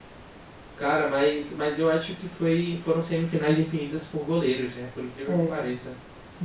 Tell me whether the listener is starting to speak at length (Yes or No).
Yes